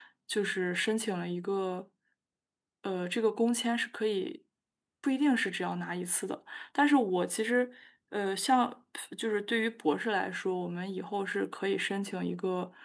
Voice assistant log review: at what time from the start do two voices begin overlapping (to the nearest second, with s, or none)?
none